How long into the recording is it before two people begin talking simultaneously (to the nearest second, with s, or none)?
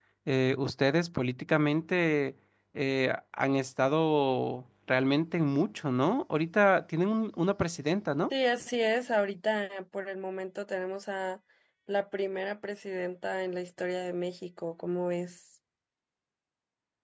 none